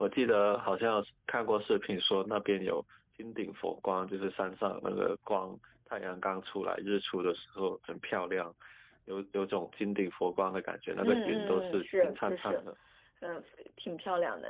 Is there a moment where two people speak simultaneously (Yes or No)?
Yes